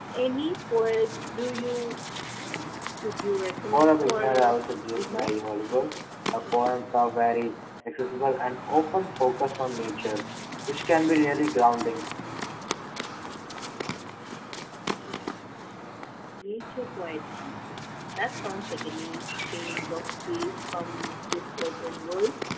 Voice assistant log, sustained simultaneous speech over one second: present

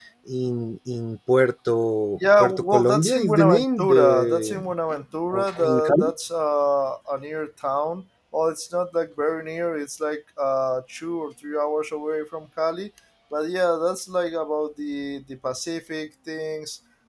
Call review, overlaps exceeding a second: present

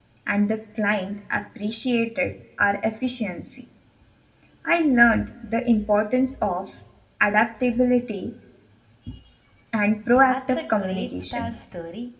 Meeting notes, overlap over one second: present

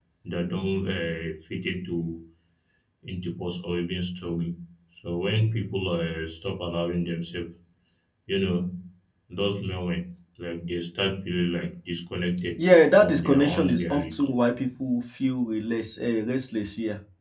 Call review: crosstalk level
present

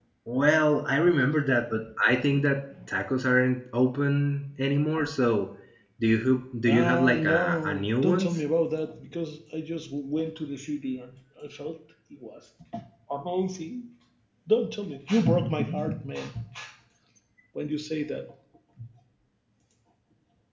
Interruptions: present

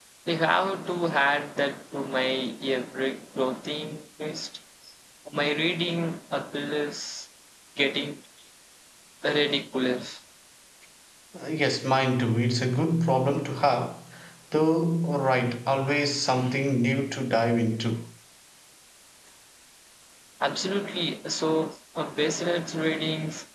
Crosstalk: none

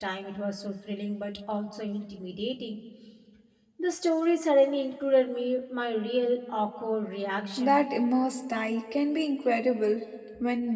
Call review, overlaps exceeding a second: none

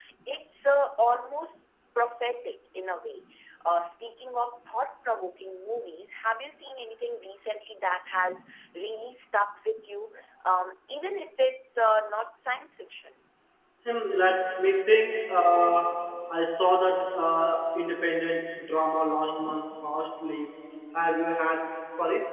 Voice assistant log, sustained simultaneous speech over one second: none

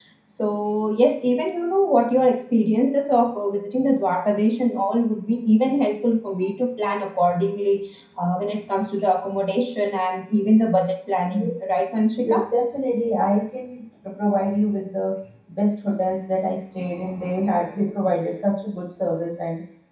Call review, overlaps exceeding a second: none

